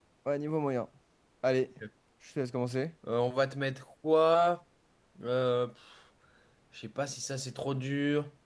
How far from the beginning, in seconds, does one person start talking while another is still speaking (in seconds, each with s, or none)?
none